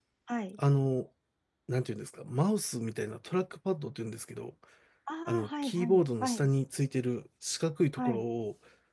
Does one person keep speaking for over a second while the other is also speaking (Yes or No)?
Yes